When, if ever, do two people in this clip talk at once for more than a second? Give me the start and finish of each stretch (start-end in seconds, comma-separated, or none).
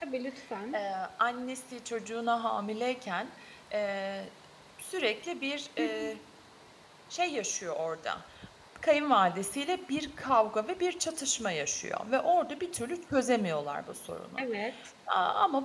none